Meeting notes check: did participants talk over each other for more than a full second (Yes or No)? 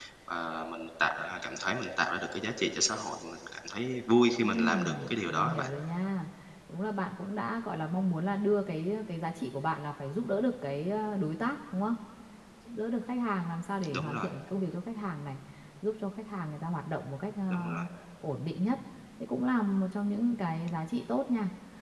Yes